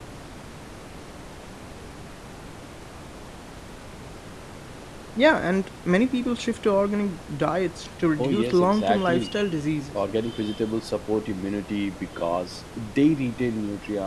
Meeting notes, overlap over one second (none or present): present